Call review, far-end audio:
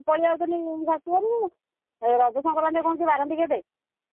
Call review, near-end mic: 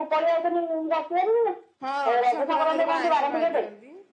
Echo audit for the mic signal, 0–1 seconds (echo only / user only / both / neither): echo only